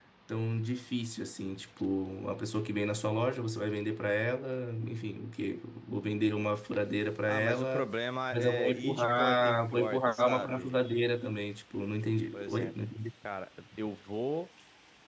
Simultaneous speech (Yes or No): Yes